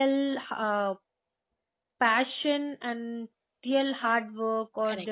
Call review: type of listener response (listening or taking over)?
listening